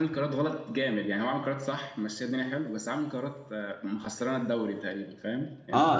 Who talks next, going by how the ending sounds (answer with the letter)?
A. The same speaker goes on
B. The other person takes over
B